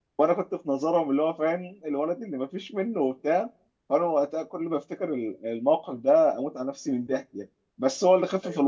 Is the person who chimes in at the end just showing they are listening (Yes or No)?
Yes